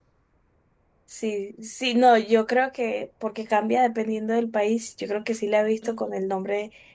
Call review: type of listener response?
listening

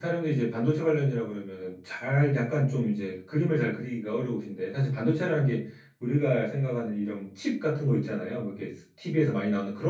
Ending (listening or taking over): listening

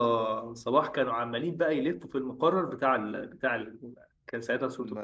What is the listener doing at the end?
listening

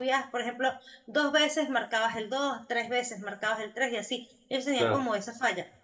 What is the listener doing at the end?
listening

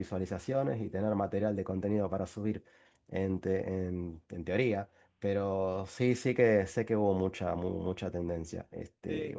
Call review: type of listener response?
taking over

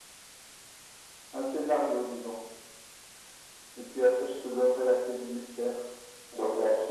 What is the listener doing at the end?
taking over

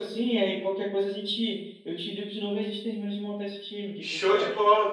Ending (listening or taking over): taking over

